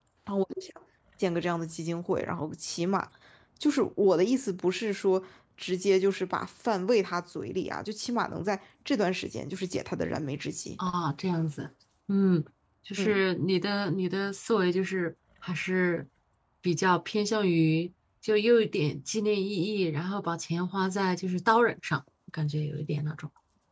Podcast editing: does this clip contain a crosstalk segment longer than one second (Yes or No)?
No